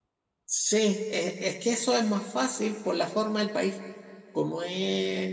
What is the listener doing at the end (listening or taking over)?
listening